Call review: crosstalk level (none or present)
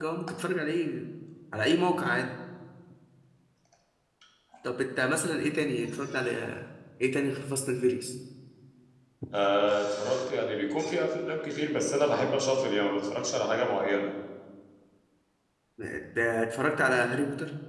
none